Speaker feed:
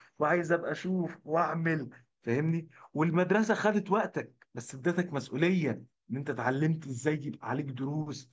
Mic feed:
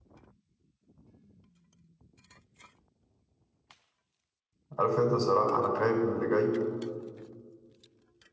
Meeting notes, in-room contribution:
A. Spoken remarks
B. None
A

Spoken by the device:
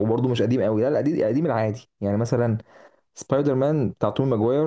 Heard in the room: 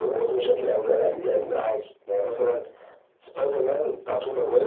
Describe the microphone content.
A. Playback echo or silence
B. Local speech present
A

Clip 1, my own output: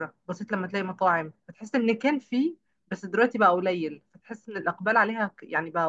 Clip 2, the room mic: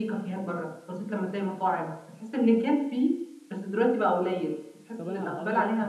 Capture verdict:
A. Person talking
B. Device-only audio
A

